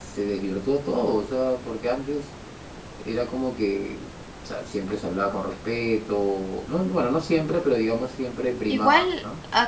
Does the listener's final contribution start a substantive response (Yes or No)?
Yes